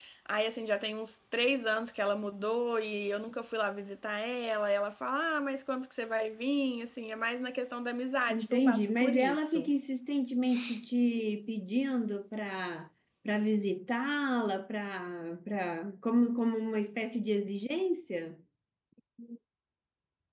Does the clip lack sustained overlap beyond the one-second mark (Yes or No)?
No